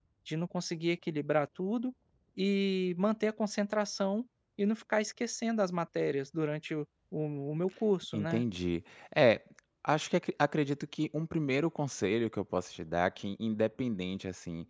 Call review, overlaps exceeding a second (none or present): none